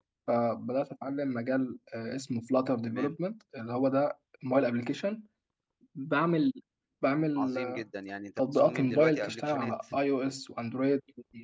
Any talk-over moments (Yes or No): Yes